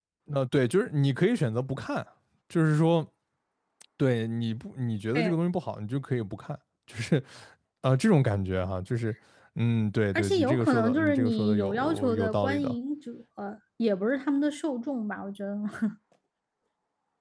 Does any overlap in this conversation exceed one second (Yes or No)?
Yes